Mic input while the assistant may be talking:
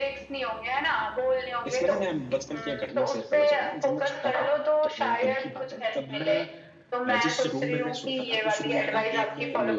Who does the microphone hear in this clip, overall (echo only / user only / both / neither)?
both